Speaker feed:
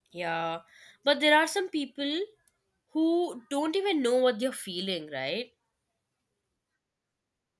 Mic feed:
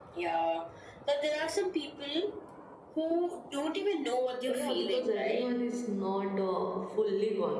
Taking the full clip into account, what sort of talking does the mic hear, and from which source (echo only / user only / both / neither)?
both